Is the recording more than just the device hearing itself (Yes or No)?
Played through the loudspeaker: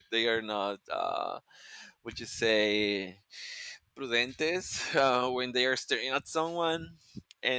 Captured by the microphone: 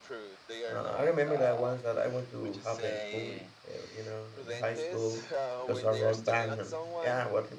Yes